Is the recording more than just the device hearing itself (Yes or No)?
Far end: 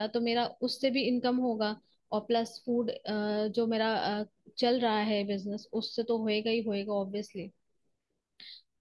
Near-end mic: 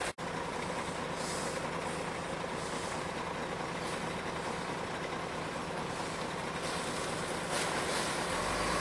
No